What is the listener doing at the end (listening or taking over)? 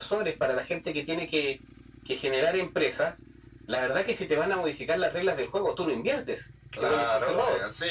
taking over